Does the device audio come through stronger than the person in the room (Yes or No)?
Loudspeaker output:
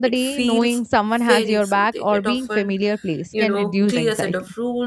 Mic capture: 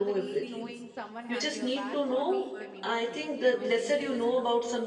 No